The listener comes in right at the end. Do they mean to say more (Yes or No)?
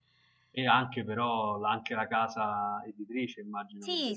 Yes